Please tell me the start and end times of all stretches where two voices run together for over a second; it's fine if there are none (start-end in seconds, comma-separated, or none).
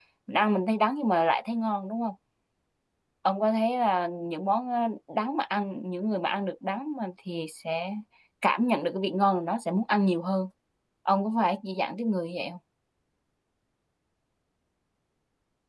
none